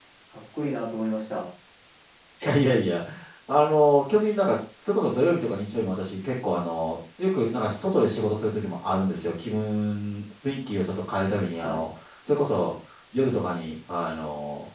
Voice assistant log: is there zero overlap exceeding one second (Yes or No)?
Yes